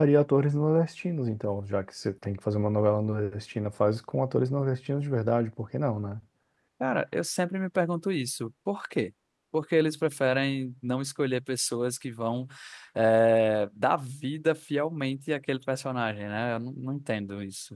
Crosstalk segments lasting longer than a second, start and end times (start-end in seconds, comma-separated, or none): none